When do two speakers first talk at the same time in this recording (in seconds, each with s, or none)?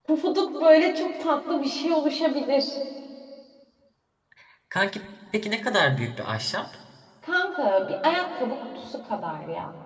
none